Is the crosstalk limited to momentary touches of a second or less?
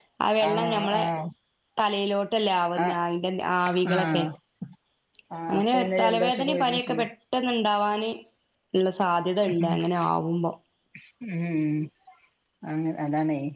No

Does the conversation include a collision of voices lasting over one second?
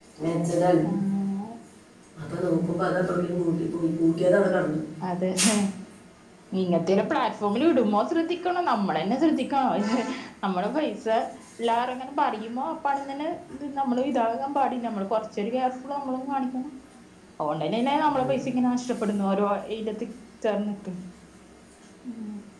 No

